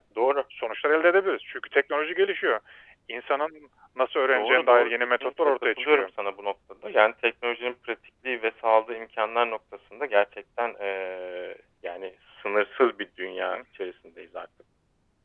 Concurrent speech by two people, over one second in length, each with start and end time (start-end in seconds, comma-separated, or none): 4.3-6.1